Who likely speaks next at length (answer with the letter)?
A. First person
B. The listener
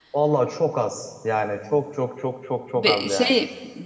B